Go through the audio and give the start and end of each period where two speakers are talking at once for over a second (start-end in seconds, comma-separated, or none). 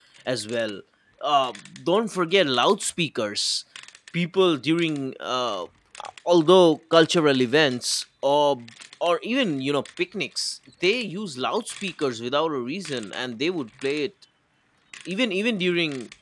none